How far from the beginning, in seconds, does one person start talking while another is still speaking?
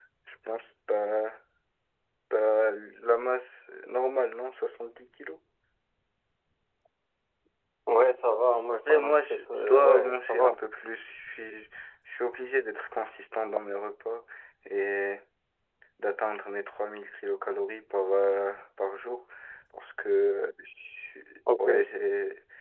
9 s

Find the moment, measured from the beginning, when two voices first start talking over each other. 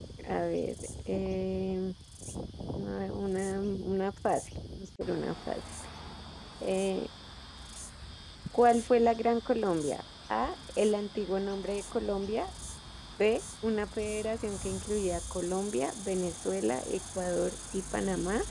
none

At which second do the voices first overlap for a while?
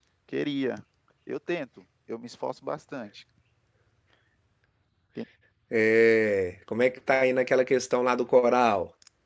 none

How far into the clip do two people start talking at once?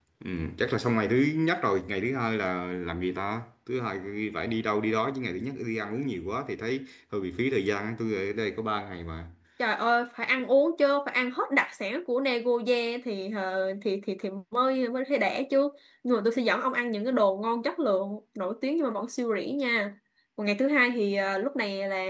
none

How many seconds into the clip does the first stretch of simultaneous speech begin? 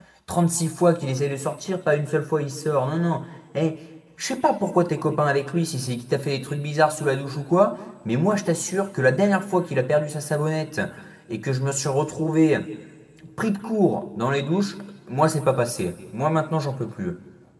none

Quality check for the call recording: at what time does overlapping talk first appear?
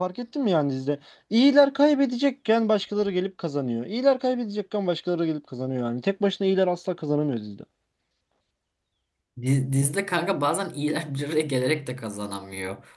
none

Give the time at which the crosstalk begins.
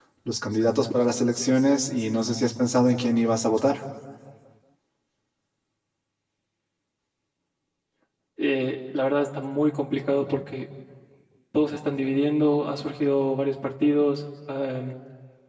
none

